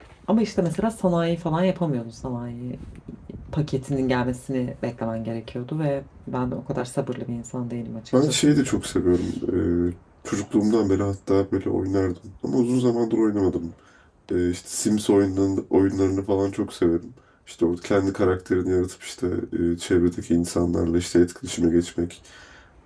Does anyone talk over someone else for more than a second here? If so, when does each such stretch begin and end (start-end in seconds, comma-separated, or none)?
none